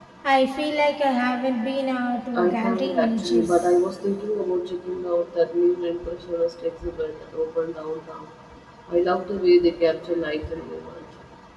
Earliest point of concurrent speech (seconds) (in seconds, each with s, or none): 2.4 s